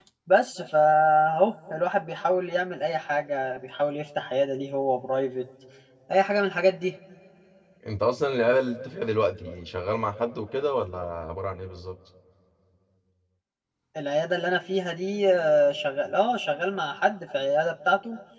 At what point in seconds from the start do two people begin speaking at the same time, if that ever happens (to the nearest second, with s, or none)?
none